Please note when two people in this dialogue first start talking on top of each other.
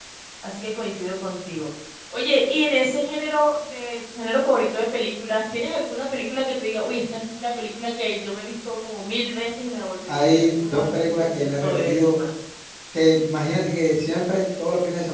10 s

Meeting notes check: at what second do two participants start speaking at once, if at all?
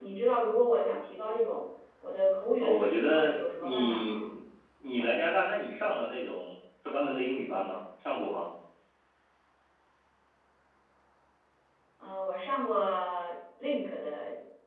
3 s

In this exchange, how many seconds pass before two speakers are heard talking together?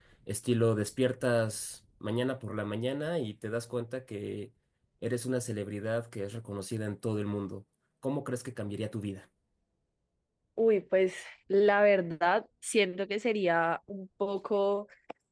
none

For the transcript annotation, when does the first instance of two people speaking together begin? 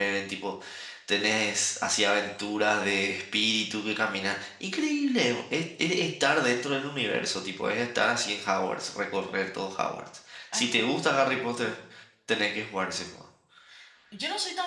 11 s

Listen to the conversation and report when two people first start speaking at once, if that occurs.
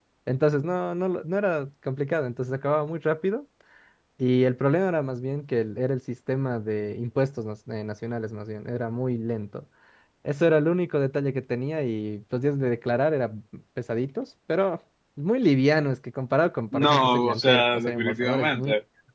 17 s

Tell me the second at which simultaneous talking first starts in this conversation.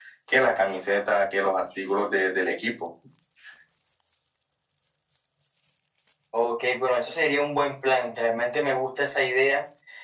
none

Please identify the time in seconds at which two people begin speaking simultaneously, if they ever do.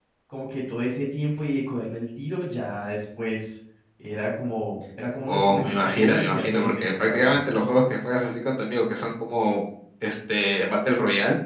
5 s

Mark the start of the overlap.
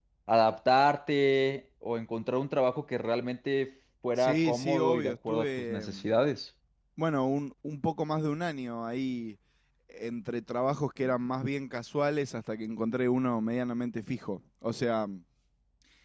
4 s

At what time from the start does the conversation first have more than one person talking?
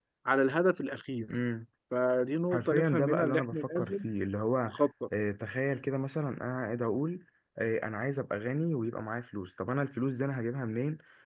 3 s

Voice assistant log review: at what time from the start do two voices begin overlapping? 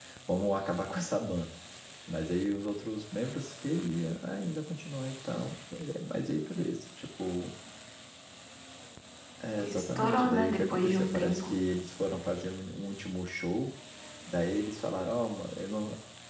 10 s

